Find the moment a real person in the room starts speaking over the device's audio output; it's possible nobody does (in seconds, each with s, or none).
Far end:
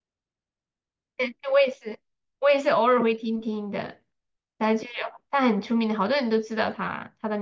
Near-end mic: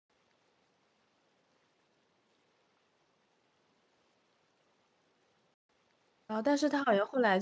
6.2 s